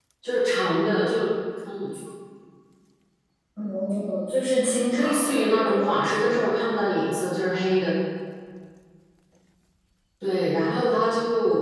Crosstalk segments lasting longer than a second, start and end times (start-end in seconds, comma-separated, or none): 4.9-6.6